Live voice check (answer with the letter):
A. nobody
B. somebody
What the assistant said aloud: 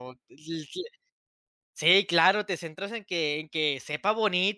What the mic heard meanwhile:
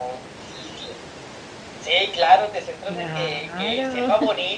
B